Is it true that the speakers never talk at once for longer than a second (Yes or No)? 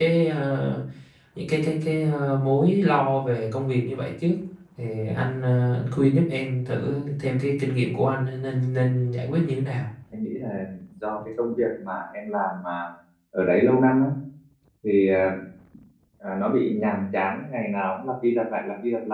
Yes